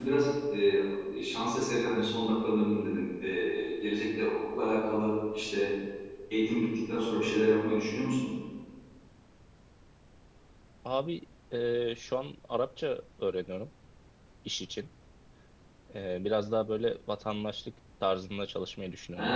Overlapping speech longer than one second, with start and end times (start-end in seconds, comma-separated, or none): none